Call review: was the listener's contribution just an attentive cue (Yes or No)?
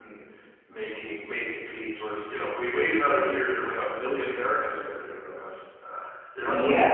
No